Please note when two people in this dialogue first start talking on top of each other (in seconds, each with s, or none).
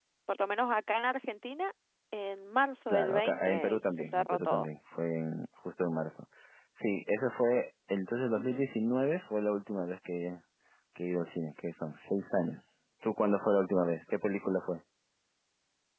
2.9 s